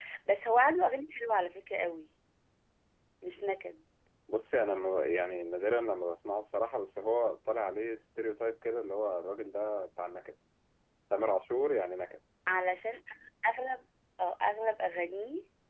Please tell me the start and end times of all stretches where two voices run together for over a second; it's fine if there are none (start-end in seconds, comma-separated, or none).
none